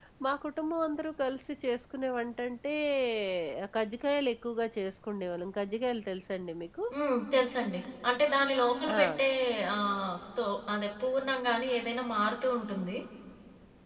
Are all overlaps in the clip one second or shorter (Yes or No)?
Yes